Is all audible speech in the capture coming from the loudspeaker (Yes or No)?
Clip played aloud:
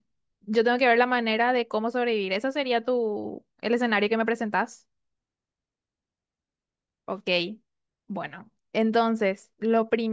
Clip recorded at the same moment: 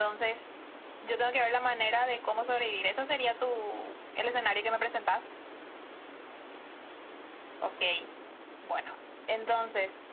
Yes